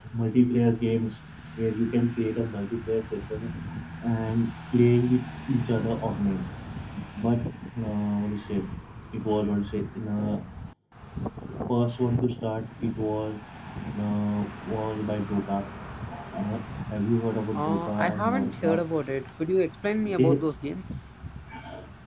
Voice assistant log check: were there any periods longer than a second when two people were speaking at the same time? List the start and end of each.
17.6-18.8

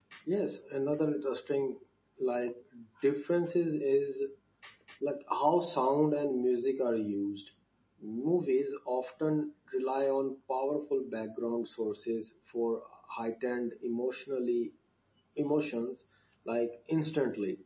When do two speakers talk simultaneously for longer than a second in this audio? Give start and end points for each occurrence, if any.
none

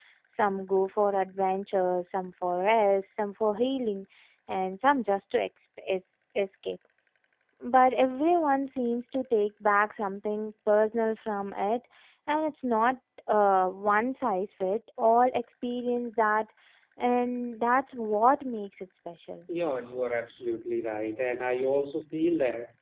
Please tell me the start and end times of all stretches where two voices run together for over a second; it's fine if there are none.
none

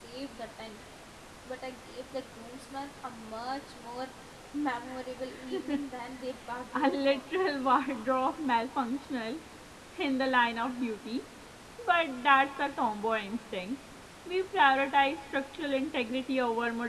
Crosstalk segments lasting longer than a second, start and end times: none

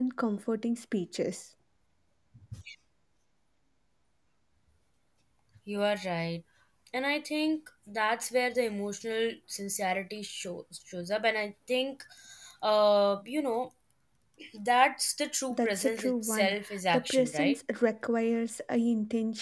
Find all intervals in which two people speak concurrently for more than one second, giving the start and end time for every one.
15.5-17.6

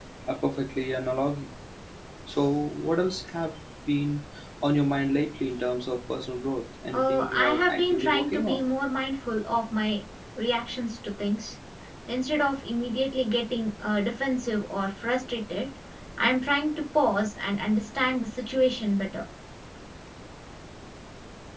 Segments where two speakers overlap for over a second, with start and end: 6.9-8.6

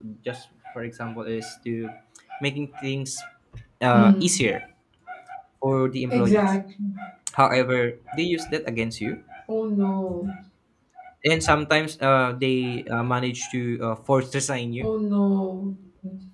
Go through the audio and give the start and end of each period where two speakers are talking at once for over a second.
none

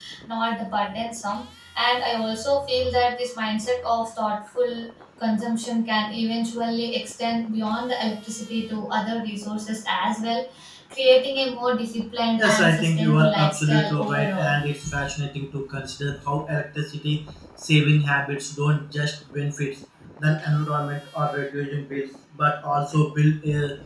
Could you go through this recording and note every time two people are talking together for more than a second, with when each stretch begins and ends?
12.4-14.6

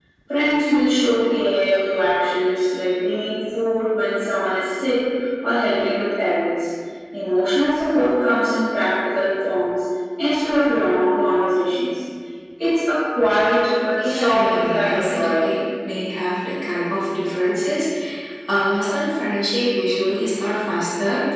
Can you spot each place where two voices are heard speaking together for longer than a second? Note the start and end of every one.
14.0-15.6

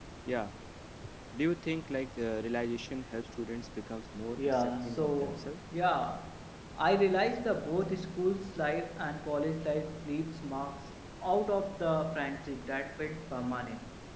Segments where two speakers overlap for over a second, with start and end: 4.4-5.6

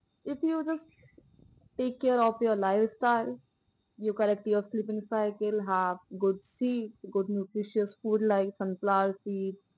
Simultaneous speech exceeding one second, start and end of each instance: none

